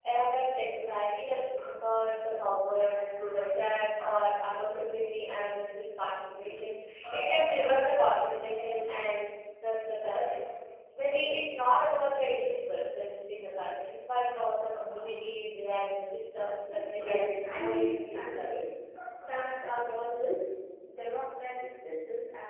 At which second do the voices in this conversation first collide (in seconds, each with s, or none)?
16.7 s